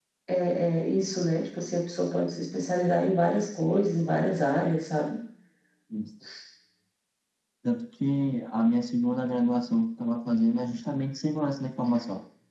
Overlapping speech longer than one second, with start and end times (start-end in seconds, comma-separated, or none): none